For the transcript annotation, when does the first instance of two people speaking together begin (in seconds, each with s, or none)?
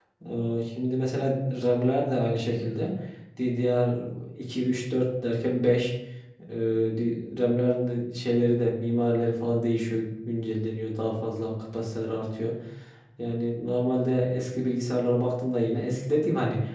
none